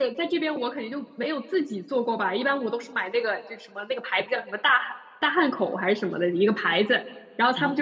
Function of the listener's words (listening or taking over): listening